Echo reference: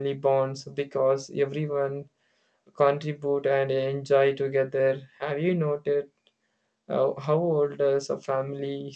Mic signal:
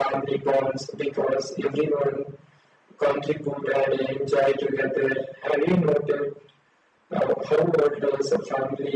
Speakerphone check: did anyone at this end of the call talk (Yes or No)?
No